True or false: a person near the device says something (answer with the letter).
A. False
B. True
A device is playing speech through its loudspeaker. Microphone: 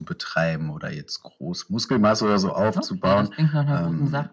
A